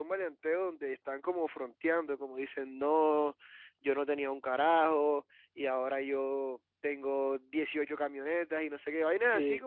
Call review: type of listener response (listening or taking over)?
listening